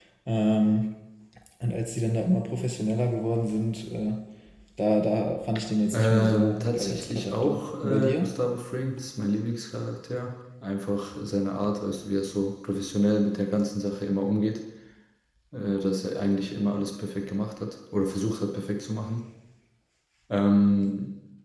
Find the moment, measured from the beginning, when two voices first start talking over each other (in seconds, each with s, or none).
5.9 s